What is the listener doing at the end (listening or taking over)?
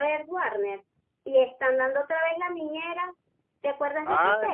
taking over